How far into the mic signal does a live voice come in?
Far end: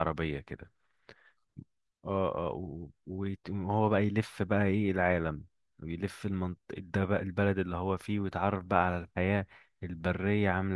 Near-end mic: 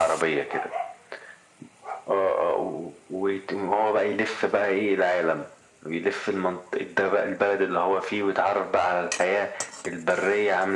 none

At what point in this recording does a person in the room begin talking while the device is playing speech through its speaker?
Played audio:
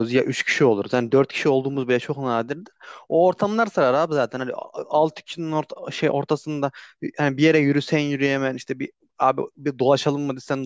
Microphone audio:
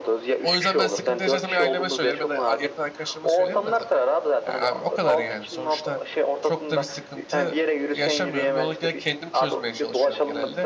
0.4 s

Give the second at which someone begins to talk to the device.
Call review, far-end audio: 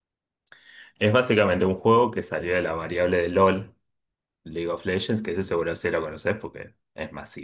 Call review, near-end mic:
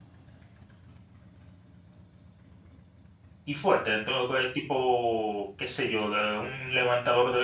3.4 s

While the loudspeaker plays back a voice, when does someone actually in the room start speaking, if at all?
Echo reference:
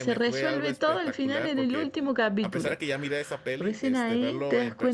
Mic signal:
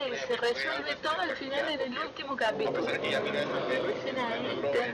2.4 s

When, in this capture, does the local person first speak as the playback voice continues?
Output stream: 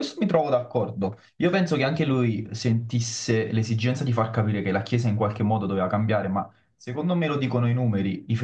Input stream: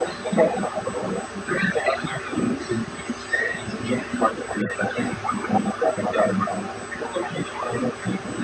none

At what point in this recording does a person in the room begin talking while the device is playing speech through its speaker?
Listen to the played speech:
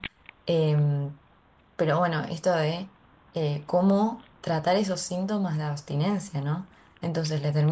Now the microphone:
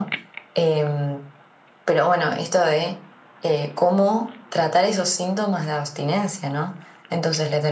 none

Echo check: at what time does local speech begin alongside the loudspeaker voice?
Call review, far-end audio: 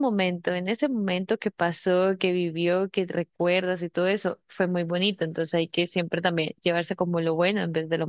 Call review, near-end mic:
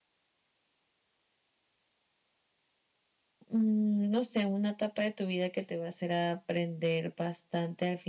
3.5 s

